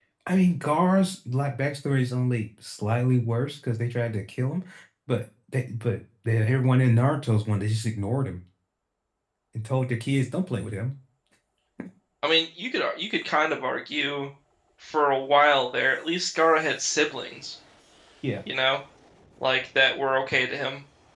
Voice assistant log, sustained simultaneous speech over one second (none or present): none